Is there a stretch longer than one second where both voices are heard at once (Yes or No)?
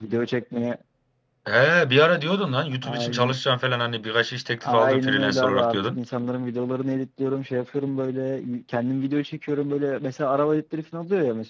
Yes